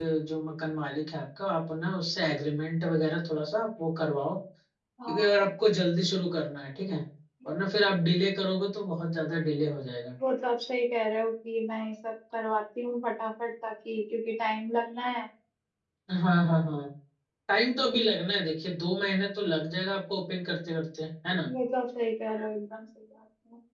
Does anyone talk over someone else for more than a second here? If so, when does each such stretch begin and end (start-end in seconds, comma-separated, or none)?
none